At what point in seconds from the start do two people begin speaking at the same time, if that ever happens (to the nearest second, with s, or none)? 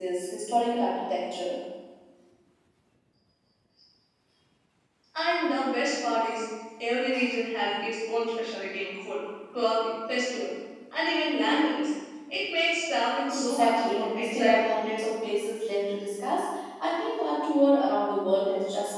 13 s